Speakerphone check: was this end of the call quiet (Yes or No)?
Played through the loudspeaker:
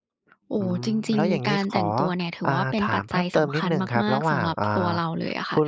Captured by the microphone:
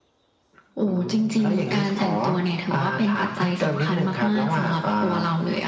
Yes